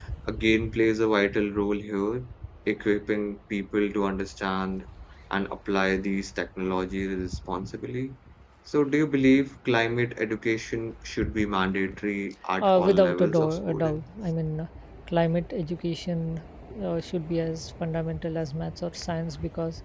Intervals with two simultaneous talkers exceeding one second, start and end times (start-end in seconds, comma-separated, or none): 12.6-14.0